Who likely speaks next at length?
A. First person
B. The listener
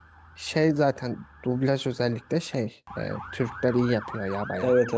B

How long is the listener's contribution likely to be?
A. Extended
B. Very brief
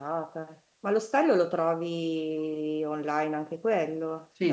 A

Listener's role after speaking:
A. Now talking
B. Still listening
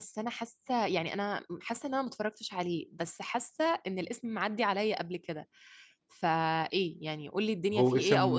A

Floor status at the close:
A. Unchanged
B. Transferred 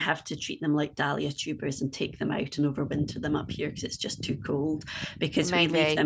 A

